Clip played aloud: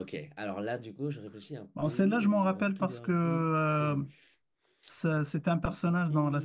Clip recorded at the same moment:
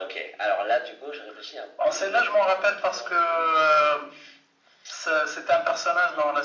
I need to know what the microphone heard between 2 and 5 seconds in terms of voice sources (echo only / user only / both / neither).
echo only